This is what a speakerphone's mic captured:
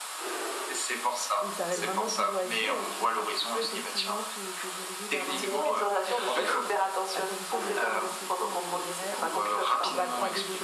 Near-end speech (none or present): present